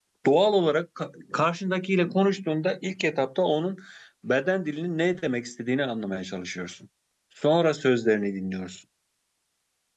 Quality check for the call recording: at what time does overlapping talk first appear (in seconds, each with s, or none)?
none